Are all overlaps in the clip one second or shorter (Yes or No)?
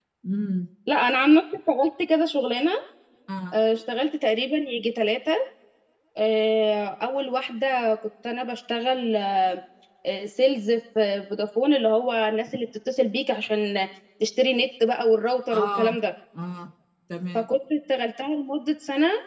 Yes